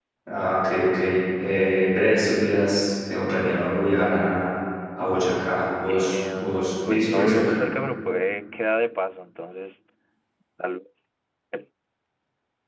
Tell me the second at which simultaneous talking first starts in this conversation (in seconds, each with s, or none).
5.9 s